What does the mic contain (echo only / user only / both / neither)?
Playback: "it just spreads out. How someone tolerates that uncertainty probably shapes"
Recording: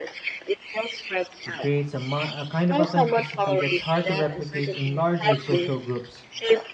both